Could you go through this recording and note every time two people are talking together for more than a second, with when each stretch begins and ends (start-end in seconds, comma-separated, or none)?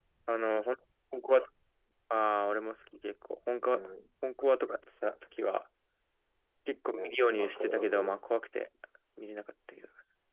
6.9-8.2